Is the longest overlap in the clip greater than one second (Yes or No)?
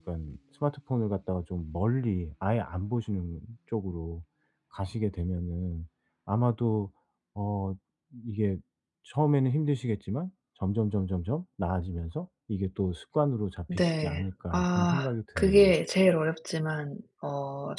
Yes